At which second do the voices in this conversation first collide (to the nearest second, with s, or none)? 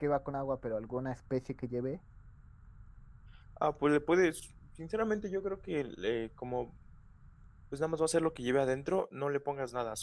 none